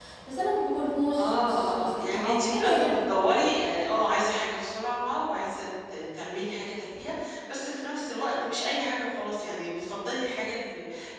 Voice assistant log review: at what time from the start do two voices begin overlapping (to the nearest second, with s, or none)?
1 s